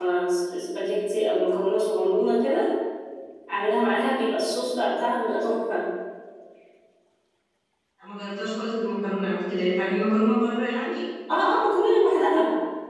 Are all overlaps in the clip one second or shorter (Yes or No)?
Yes